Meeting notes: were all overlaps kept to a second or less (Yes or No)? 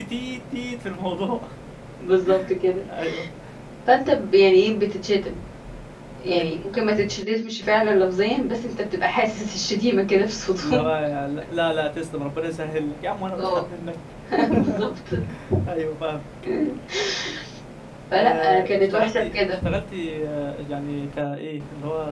No